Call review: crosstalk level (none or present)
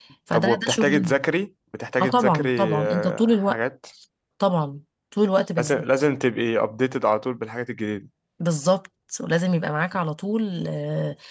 present